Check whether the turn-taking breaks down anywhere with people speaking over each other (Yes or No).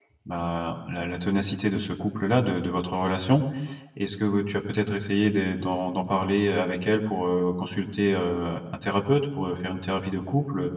No